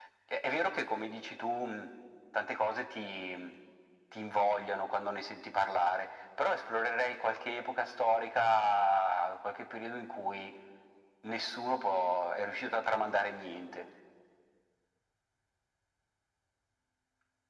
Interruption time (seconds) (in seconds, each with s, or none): none